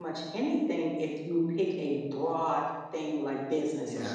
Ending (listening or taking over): taking over